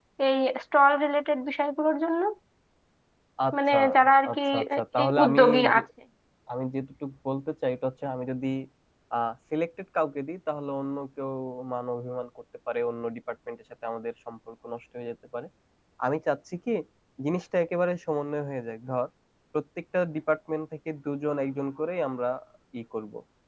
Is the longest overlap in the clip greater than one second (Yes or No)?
Yes